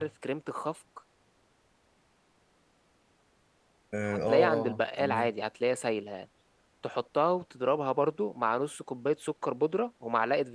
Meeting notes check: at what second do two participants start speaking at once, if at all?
4.0 s

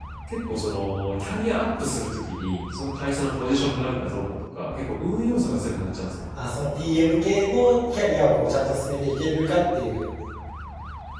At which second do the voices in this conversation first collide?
none

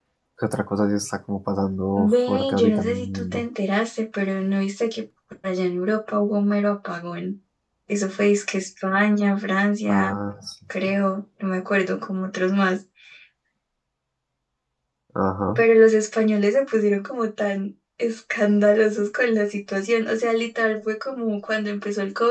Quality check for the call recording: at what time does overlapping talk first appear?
2.0 s

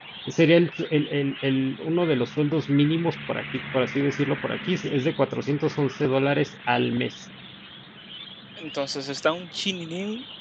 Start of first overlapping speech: none

